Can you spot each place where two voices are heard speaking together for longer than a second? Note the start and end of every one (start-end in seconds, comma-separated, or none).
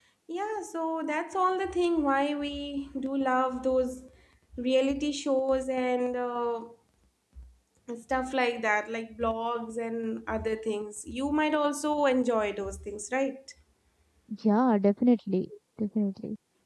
none